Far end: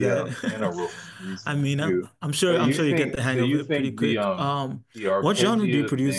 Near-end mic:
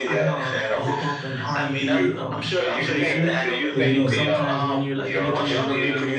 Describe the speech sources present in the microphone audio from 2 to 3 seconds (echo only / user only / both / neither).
both